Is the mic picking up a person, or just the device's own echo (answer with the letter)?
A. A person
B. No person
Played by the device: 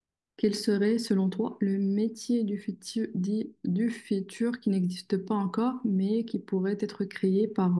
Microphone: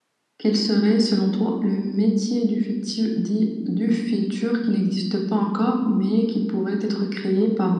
B